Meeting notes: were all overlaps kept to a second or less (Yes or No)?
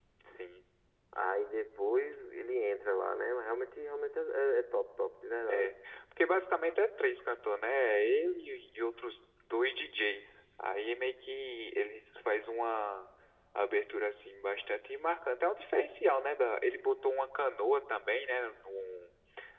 Yes